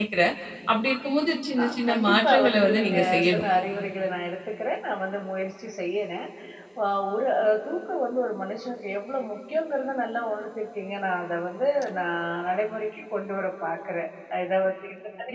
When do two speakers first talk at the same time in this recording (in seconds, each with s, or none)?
1.6 s